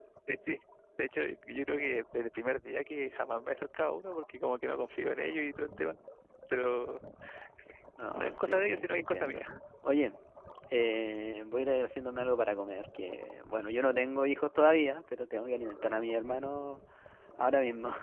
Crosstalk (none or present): present